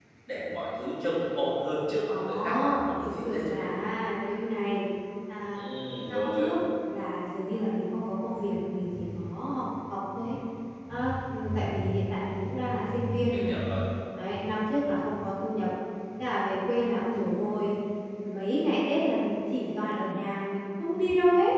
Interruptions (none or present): present